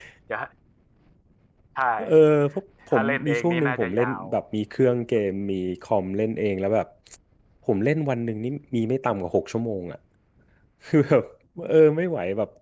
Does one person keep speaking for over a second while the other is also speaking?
Yes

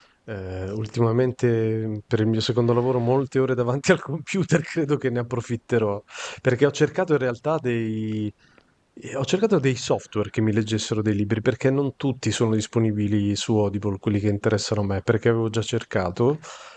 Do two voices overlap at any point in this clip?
No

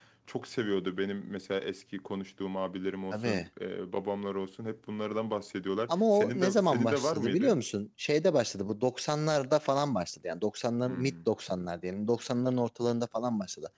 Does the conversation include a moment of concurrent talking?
Yes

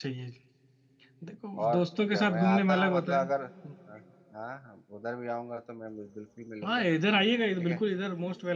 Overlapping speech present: Yes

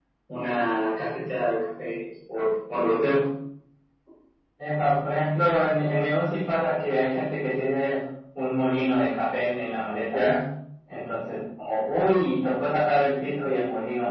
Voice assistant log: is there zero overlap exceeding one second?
Yes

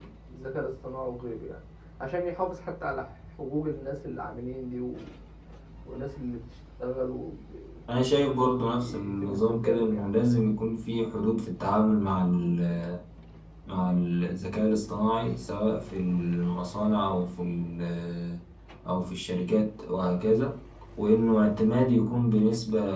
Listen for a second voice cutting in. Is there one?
Yes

